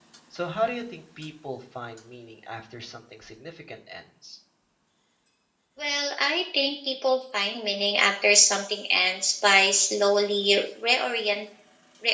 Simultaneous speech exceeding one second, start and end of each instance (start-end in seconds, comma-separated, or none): none